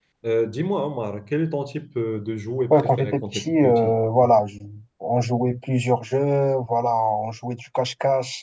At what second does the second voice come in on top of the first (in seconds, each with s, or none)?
2.7 s